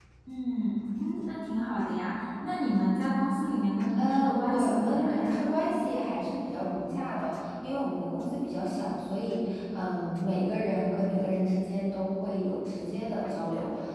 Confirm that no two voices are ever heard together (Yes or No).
No